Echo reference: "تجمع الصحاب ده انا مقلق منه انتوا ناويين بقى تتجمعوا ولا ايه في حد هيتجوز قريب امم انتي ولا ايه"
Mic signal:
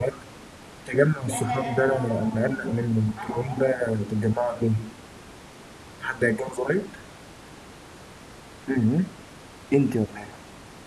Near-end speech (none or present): present